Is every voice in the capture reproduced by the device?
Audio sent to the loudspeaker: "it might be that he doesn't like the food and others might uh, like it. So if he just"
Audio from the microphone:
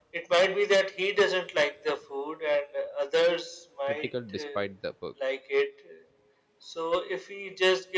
No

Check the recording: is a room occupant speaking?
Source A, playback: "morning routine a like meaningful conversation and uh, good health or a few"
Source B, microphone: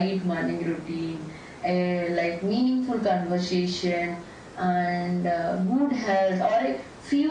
No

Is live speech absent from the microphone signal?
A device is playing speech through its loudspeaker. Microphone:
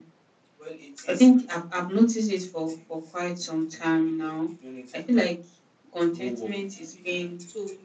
No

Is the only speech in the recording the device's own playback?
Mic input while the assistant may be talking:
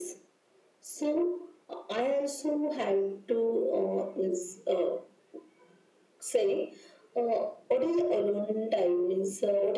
Yes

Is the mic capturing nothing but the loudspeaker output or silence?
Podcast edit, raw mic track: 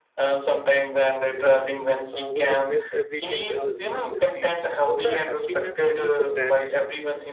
No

